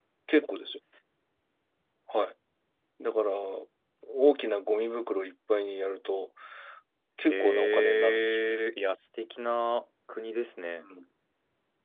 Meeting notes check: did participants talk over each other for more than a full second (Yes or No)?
Yes